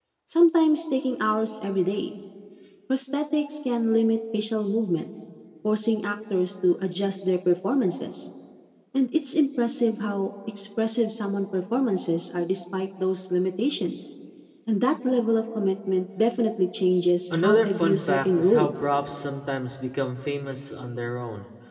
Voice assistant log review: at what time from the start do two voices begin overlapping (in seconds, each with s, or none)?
17.3 s